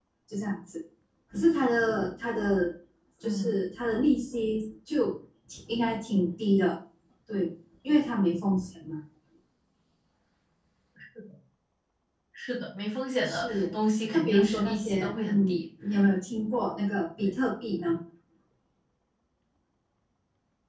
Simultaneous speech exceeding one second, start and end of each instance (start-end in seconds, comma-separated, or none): 14.1-15.6